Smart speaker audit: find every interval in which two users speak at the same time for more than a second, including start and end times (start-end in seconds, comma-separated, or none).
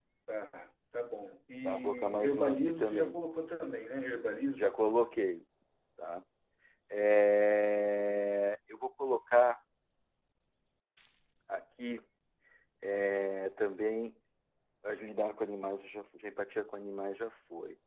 1.6-3.1